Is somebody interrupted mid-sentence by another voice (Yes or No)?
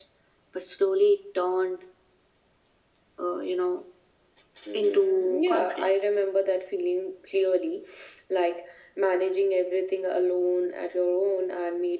Yes